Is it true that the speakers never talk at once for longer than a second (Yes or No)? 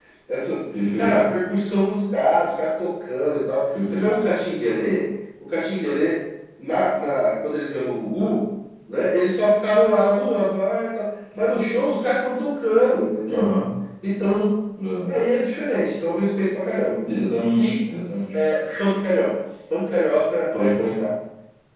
Yes